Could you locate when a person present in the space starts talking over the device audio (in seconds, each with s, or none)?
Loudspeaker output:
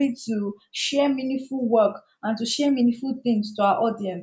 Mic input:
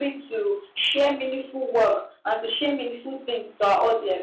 none